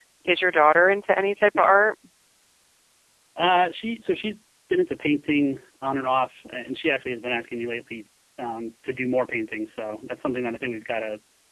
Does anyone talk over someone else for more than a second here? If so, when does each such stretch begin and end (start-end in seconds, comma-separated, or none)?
none